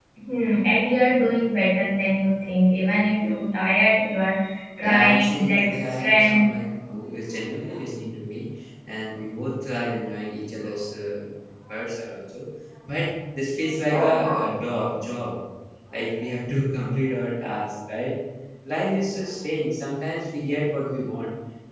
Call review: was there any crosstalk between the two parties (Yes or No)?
Yes